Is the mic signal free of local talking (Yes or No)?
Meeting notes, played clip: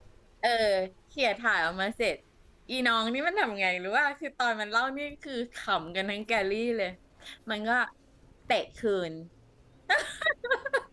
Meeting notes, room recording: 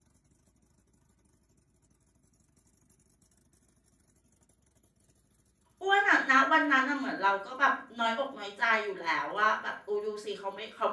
No